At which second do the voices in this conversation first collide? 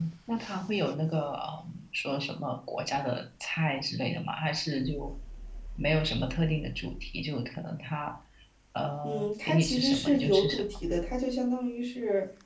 9 s

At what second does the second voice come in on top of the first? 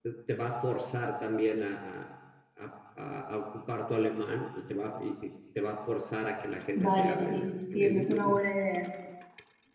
7 s

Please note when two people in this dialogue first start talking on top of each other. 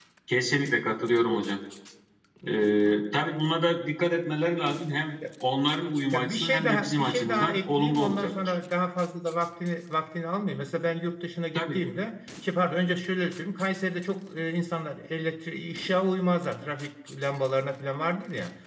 6 s

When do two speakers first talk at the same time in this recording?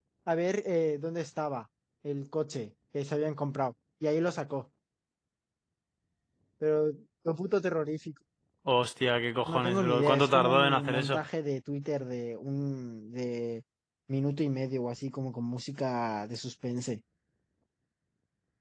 9 s

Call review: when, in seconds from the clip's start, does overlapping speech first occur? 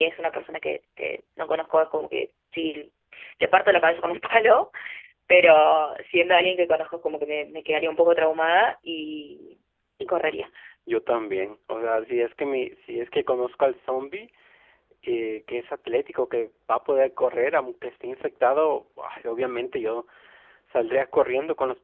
none

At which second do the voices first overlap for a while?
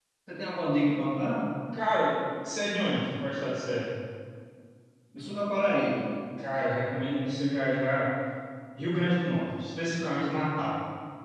none

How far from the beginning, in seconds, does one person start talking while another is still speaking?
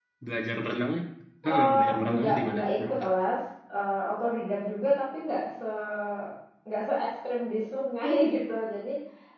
1 s

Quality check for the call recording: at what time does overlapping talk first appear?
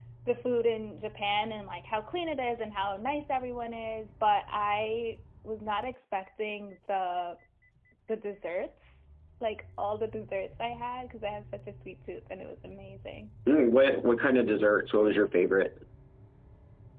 none

